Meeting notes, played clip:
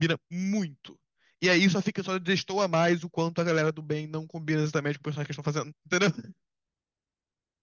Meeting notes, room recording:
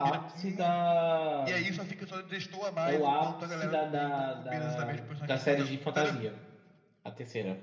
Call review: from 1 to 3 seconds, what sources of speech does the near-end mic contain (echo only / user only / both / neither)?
both